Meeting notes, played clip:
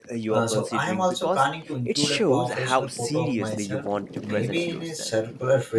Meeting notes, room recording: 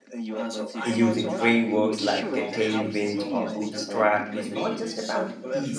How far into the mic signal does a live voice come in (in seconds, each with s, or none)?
0.8 s